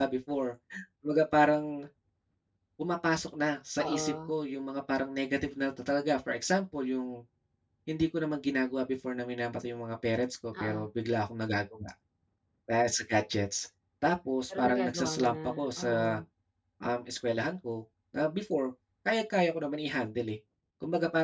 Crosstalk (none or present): present